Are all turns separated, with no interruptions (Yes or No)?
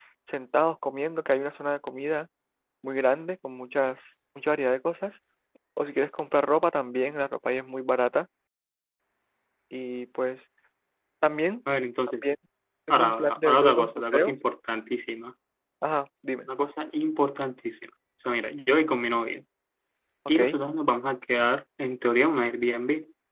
No